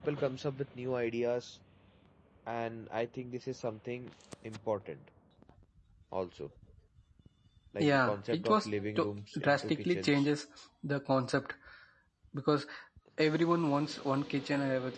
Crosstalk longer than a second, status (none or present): present